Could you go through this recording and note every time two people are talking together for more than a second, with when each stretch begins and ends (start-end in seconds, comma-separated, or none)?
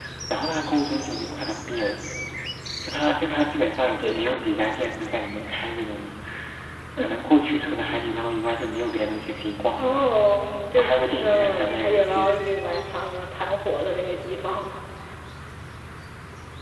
10.8-12.3